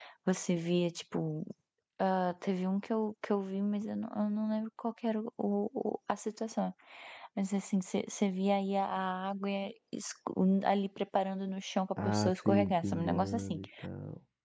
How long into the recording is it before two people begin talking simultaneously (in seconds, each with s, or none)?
12.0 s